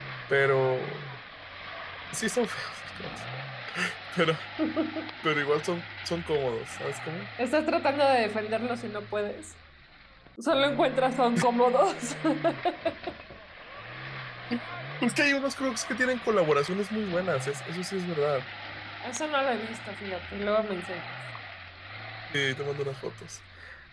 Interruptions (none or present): none